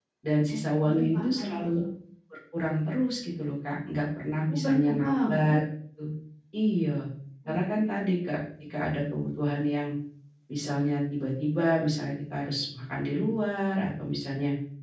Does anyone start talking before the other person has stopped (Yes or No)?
Yes